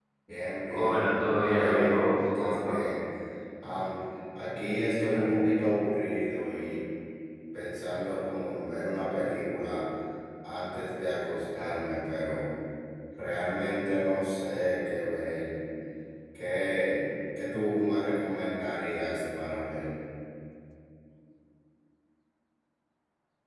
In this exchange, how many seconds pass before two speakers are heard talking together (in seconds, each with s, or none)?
0.7 s